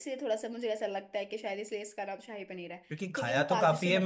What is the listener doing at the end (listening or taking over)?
taking over